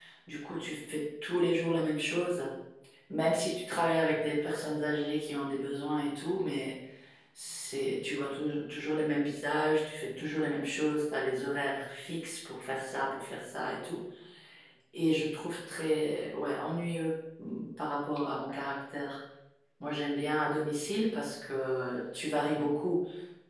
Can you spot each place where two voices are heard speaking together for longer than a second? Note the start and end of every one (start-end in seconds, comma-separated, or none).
none